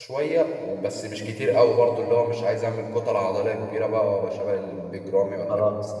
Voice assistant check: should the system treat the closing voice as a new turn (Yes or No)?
Yes